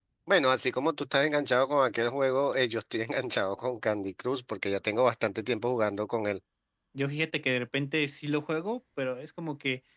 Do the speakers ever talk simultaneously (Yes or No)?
No